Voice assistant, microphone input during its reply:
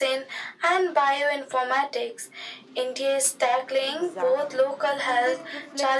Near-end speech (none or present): present